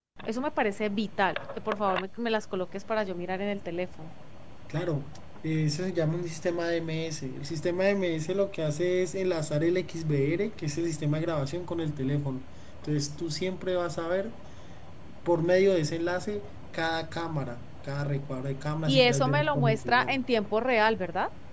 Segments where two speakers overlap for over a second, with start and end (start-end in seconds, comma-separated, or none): 18.9-20.2